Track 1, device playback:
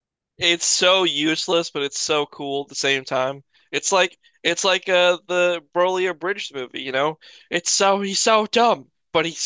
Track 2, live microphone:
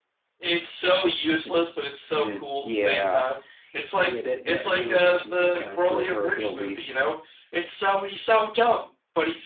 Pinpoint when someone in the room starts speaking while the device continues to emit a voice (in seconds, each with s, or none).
1.4 s